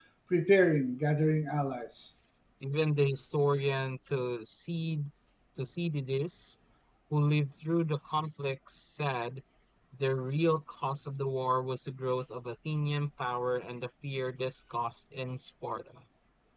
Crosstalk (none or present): none